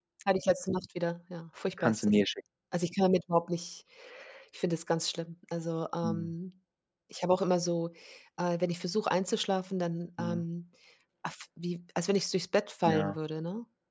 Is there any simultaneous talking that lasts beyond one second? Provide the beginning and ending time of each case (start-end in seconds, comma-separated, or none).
none